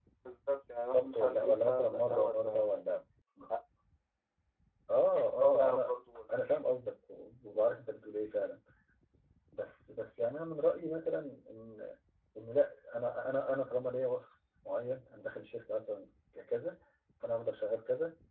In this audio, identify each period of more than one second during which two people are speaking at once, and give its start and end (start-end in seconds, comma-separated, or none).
0.9-2.8